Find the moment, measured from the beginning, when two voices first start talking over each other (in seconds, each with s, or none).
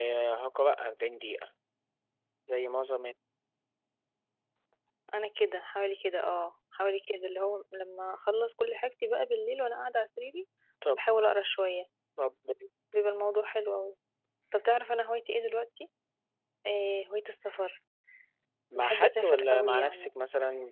18.8 s